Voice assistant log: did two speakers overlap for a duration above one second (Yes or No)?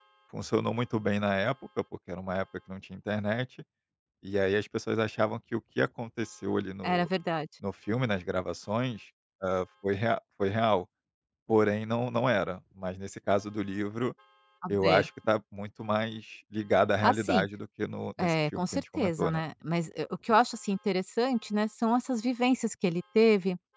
Yes